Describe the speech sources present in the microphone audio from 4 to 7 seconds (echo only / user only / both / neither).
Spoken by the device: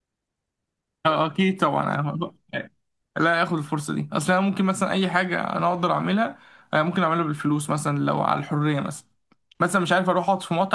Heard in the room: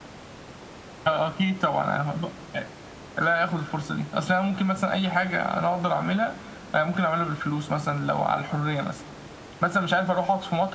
echo only